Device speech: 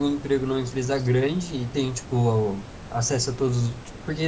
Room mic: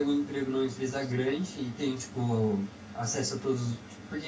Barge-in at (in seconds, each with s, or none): none